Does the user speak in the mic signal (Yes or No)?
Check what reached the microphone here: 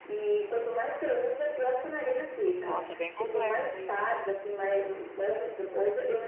Yes